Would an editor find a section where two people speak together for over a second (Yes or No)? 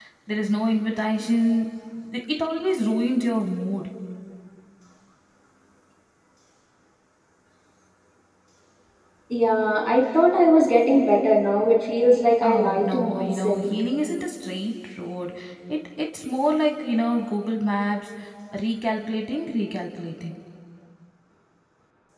Yes